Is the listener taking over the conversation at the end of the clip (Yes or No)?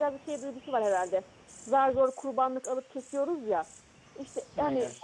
No